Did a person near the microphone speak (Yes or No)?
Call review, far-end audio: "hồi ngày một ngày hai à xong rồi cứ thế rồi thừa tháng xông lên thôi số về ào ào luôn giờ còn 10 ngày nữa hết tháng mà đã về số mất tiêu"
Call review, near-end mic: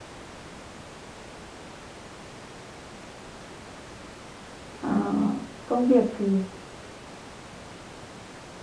Yes